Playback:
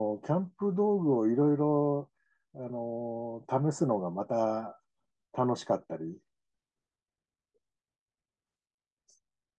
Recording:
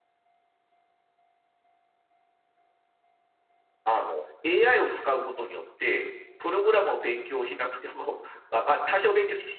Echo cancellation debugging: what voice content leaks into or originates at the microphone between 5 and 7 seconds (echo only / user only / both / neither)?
user only